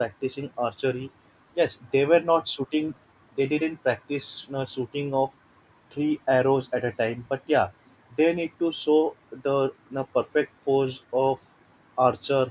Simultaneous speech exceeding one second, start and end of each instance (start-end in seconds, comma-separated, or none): none